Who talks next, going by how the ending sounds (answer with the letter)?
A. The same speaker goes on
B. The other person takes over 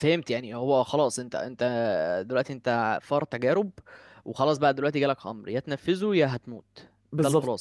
B